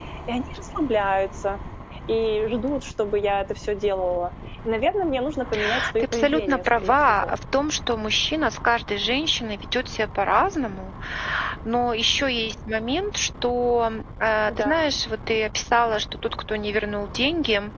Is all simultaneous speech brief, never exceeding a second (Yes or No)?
No